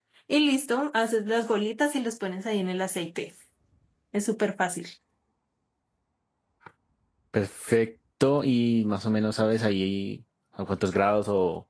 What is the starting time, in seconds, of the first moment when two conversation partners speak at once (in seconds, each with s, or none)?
none